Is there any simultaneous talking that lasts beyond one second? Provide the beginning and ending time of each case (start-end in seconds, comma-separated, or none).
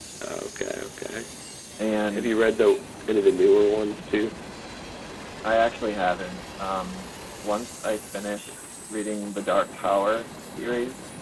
none